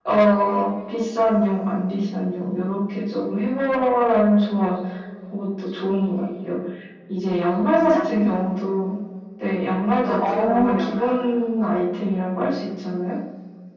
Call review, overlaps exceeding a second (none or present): present